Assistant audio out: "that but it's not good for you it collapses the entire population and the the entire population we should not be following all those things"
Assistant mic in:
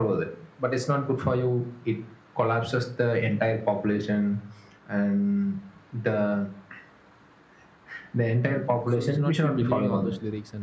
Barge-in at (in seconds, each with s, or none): 8.8 s